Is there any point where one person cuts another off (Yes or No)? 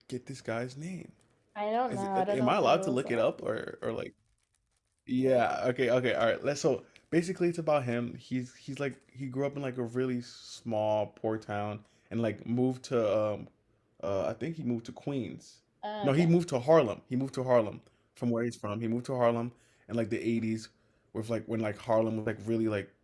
Yes